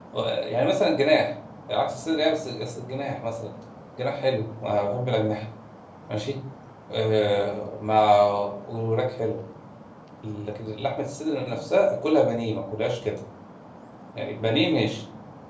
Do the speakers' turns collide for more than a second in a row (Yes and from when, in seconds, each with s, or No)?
No